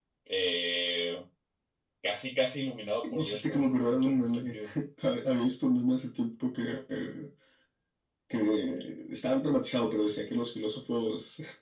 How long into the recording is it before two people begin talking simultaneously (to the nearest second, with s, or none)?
3 s